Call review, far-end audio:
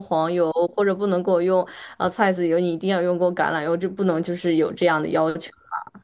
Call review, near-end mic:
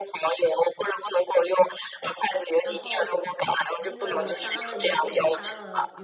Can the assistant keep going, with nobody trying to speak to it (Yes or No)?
No